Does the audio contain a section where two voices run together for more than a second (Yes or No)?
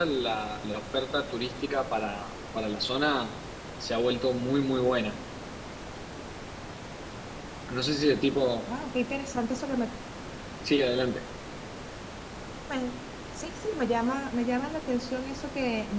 No